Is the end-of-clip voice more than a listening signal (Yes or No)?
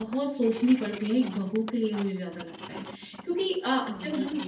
No